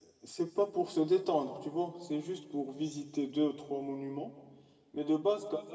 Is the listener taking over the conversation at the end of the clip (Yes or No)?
No